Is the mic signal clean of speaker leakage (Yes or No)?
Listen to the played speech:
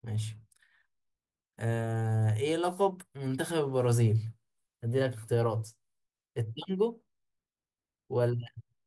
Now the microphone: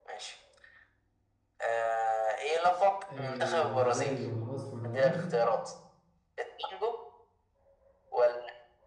No